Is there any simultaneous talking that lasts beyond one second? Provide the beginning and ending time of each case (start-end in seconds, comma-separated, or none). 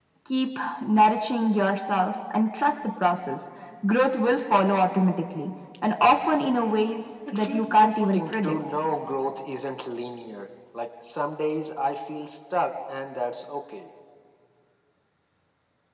7.3-8.5